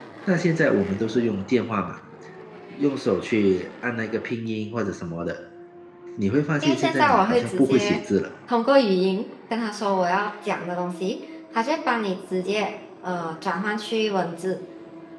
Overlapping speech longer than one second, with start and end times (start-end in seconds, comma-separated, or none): 6.6-8.0